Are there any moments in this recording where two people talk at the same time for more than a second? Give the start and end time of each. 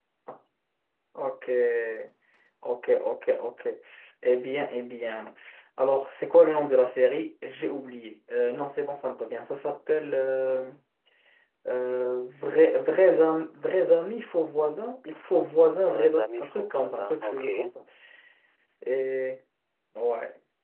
15.9-17.5

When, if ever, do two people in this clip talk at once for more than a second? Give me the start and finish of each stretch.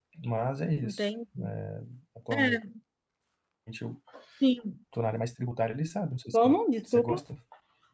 none

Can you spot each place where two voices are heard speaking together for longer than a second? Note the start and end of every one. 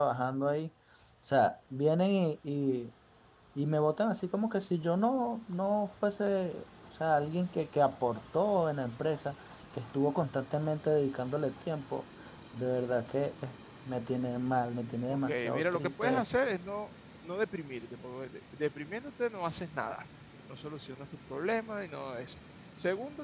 15.1-16.5

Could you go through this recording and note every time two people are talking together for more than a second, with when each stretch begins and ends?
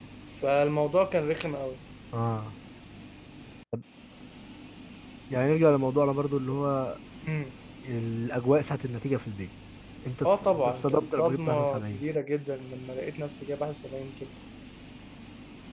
10.2-12.0

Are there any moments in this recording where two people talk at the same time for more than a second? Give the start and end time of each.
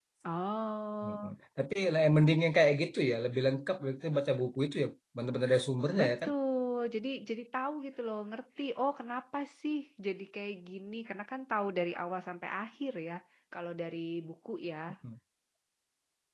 none

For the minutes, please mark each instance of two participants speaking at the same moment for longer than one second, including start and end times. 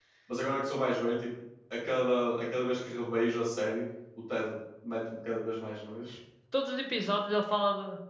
none

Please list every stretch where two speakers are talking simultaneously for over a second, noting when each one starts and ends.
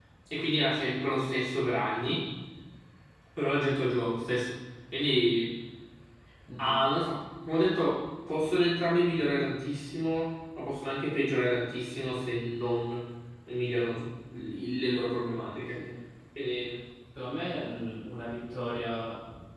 none

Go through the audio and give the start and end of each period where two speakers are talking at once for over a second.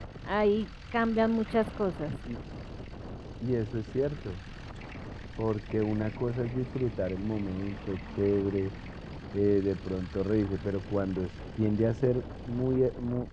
none

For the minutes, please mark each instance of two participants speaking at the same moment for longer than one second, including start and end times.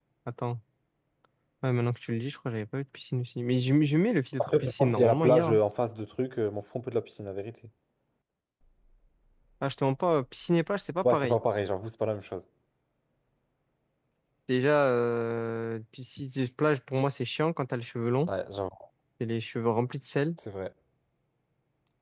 4.4-5.6

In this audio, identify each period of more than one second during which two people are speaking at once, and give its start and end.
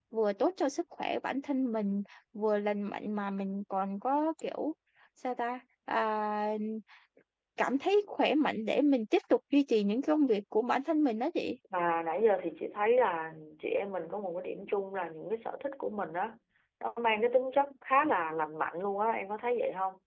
none

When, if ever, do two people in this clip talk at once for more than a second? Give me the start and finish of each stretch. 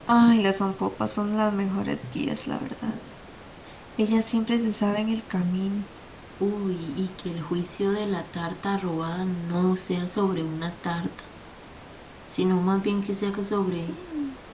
none

